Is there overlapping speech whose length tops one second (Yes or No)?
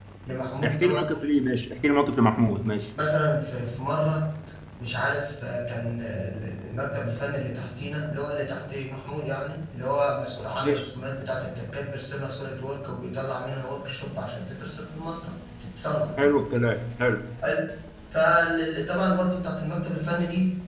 No